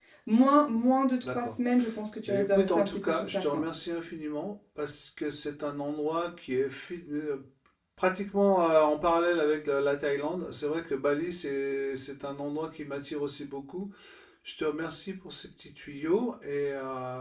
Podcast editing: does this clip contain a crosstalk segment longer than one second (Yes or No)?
Yes